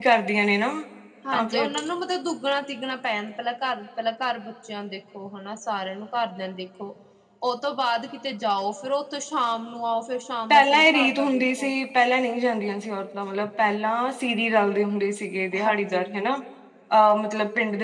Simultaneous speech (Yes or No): Yes